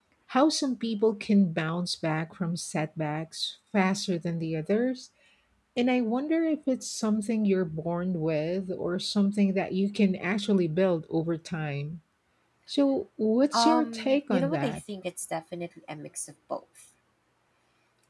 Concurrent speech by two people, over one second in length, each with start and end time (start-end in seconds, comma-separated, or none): 13.5-14.8